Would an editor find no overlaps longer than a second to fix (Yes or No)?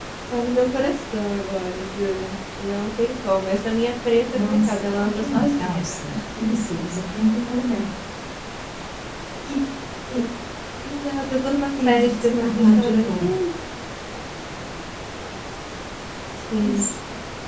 No